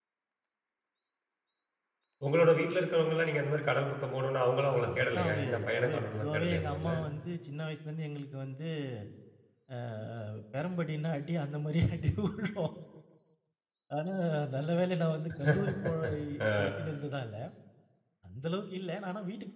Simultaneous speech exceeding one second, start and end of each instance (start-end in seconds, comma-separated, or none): 5.0-6.9